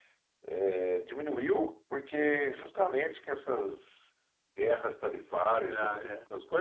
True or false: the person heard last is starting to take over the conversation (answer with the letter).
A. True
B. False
B